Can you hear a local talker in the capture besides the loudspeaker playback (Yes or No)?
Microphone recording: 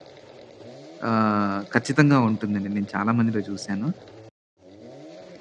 Yes